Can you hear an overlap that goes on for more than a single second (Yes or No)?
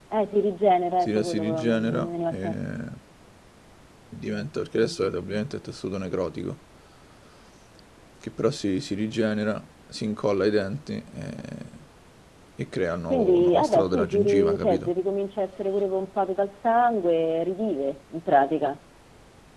Yes